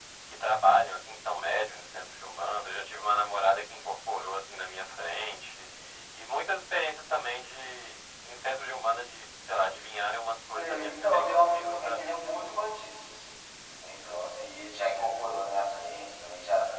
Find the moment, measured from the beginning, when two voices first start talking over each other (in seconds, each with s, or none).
10.5 s